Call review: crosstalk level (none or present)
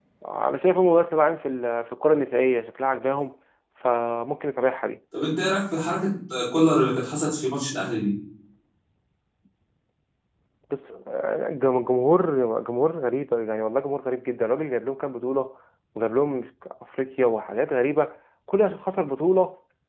none